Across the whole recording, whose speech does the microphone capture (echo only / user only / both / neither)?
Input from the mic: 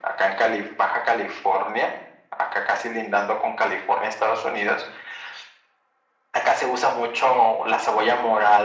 echo only